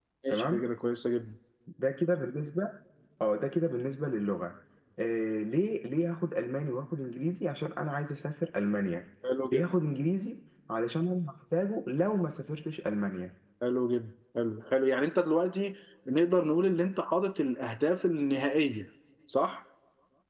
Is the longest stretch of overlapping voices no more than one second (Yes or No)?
Yes